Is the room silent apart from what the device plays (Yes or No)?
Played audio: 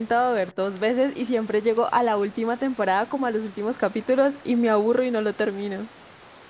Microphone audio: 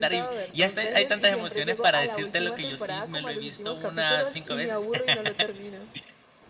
No